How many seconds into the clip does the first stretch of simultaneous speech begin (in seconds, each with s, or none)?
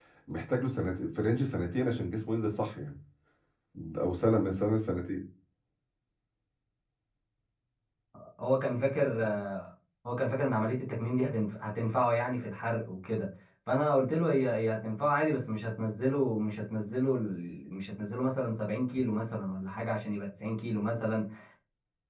none